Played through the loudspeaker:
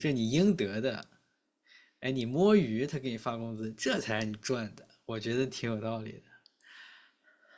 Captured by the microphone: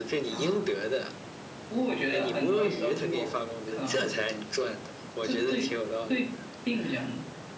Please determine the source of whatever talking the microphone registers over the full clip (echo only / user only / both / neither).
both